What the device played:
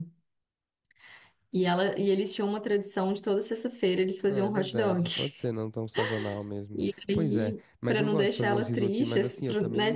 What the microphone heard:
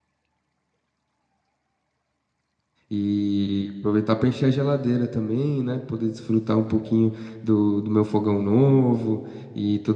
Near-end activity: present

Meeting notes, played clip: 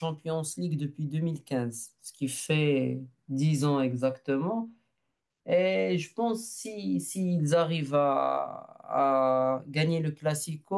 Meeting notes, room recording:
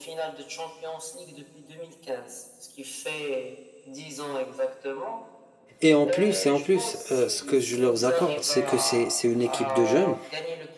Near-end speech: present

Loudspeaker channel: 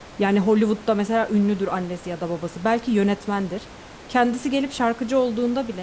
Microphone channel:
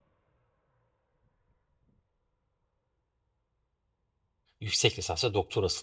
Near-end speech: present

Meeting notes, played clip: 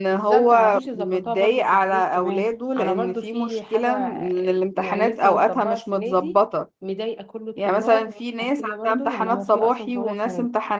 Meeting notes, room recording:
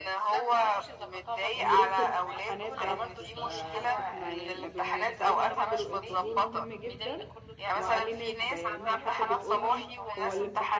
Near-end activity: present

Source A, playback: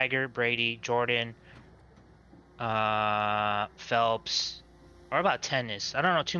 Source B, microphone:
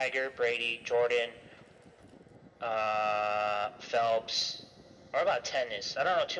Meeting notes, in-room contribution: none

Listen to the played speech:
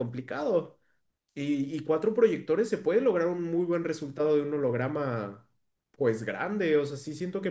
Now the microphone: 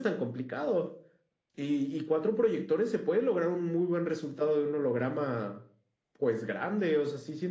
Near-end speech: none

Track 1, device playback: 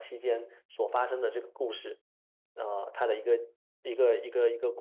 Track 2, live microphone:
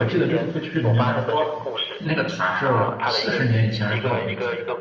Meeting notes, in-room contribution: present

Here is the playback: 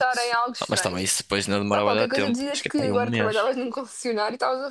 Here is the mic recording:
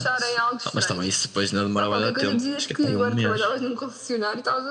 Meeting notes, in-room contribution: none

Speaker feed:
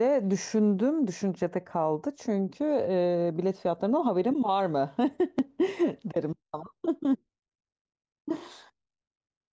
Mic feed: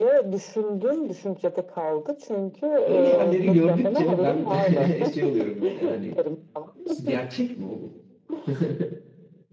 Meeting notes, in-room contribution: present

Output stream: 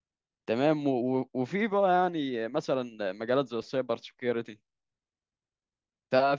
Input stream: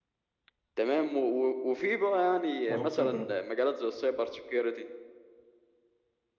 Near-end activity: present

